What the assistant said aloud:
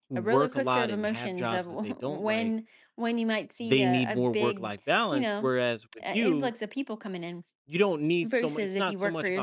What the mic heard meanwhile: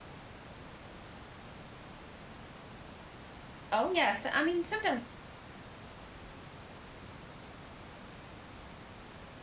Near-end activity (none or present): present